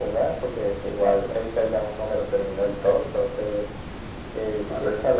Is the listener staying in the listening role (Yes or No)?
Yes